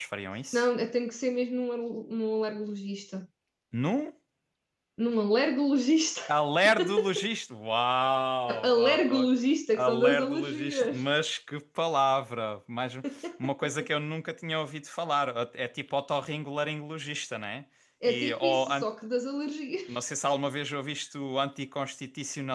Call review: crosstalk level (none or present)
present